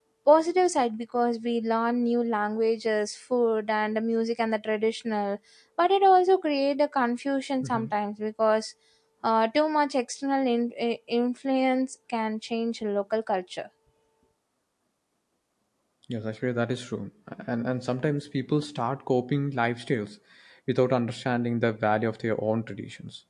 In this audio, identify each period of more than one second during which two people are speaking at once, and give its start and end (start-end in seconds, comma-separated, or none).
none